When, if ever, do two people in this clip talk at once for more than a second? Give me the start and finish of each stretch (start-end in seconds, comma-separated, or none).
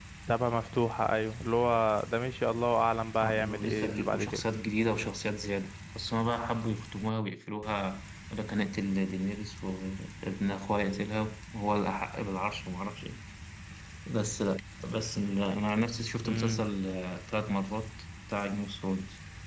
3.2-4.4